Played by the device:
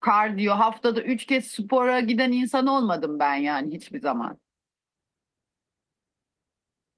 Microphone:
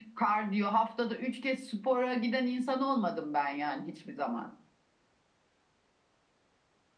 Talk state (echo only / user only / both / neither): echo only